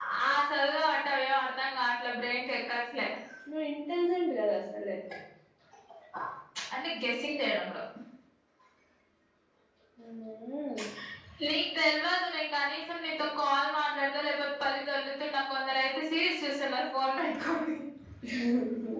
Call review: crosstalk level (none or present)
none